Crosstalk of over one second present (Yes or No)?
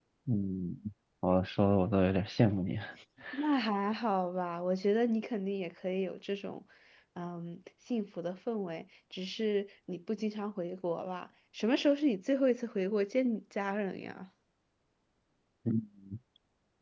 No